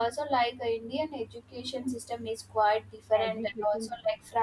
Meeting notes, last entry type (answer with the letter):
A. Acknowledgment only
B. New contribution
A